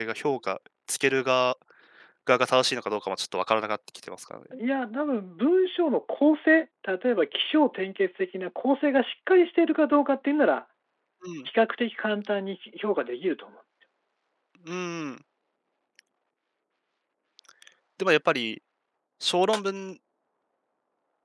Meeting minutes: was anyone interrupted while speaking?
No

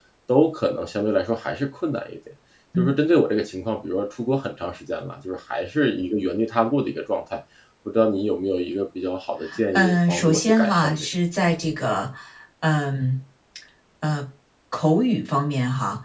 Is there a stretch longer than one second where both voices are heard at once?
Yes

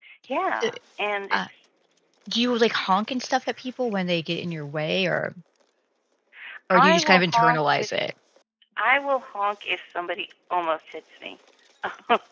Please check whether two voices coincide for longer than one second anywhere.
Yes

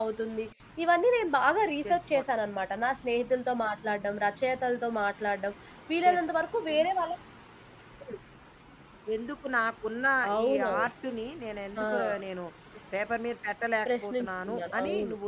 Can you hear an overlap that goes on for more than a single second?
Yes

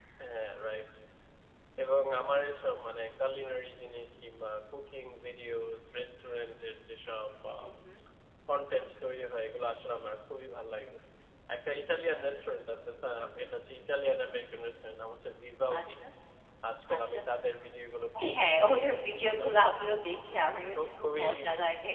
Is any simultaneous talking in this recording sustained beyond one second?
Yes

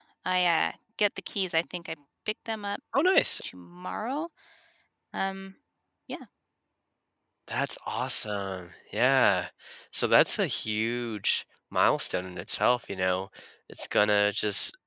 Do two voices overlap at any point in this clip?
No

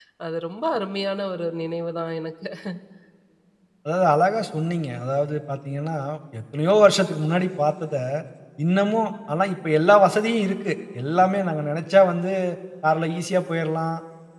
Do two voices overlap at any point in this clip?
No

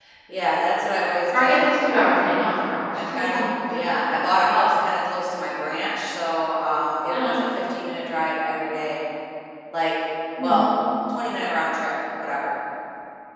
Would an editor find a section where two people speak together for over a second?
No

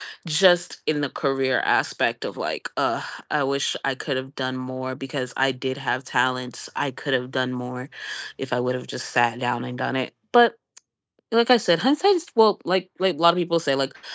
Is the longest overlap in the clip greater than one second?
No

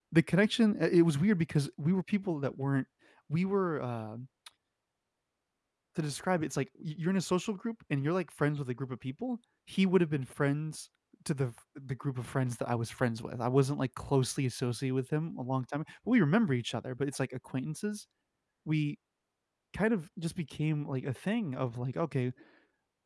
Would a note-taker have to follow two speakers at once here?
No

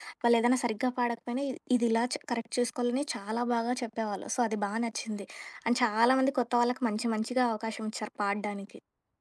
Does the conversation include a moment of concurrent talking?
No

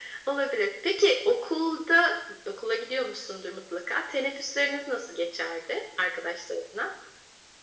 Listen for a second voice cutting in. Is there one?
No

